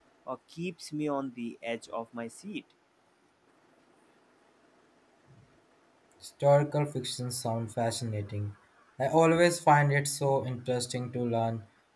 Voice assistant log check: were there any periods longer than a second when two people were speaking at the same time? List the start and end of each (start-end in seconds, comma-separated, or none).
none